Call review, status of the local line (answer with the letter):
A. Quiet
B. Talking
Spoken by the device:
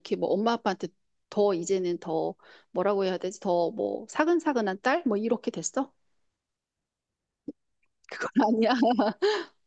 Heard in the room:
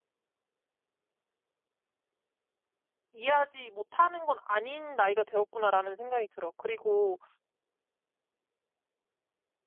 B